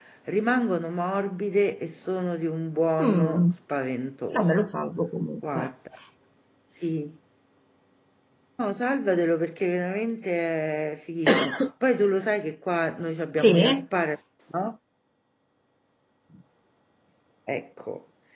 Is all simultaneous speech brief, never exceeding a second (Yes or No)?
Yes